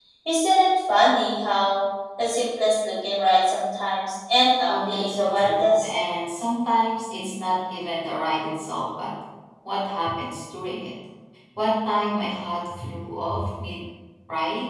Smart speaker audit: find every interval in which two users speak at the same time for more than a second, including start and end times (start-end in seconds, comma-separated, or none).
4.7-5.9